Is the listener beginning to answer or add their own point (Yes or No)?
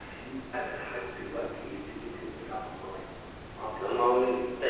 Yes